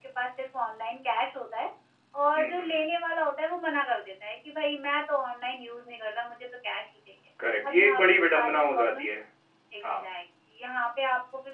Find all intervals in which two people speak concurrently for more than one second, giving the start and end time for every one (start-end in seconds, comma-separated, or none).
7.7-9.1